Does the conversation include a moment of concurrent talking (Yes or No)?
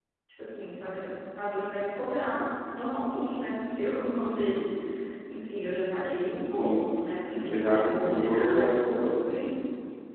Yes